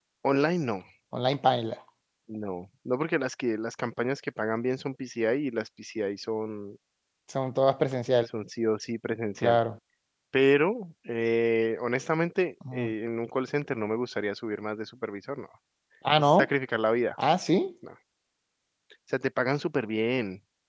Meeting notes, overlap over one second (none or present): none